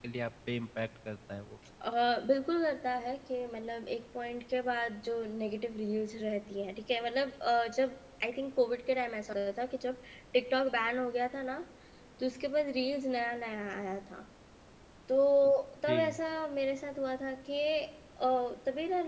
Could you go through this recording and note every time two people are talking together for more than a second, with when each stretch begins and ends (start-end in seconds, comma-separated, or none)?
none